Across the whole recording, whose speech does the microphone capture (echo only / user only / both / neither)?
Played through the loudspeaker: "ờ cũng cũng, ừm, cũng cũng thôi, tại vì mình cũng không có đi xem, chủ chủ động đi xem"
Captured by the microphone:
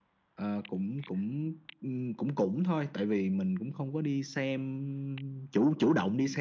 echo only